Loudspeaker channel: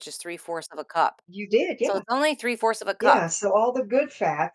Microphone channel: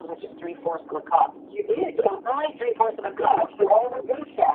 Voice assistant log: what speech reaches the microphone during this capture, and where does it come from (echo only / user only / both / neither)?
echo only